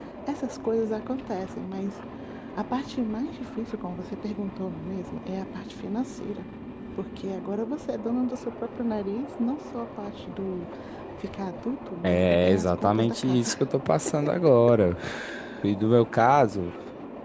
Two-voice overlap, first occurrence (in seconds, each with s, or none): 12.0 s